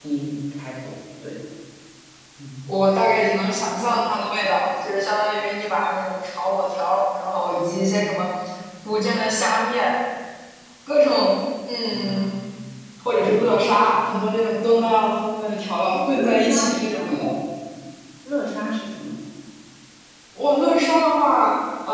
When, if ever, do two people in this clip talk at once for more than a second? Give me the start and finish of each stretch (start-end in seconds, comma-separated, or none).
15.8-17.2